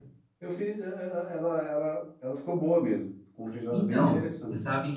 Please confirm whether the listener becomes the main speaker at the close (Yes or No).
Yes